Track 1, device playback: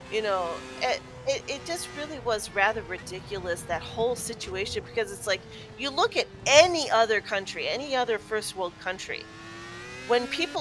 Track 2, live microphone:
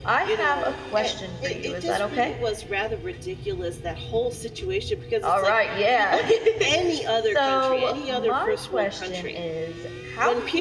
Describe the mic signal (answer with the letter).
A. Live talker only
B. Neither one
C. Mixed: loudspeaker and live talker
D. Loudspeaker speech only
C